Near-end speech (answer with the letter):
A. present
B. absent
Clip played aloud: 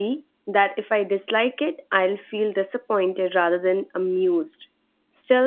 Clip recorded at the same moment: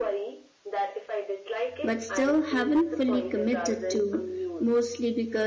A